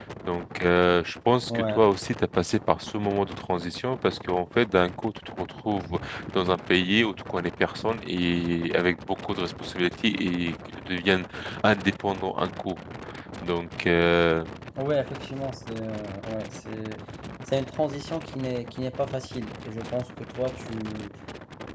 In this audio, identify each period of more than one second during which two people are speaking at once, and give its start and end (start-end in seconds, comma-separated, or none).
none